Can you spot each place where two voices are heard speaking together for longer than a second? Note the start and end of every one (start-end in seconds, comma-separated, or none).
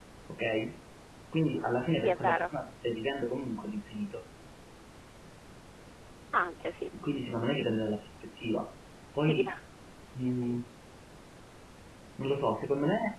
none